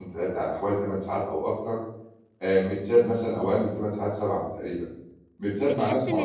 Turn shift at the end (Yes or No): Yes